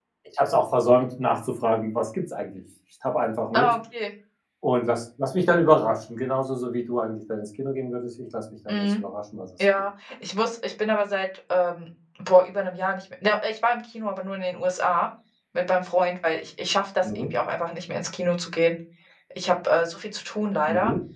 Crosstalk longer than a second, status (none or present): none